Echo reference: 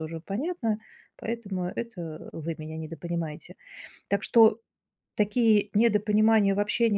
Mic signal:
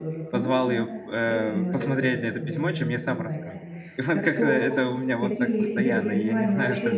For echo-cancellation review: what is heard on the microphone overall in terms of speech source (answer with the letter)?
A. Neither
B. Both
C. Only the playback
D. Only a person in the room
B